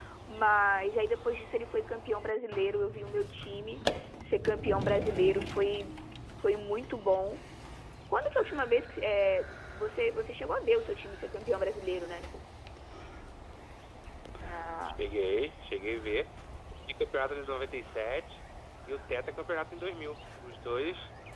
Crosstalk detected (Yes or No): No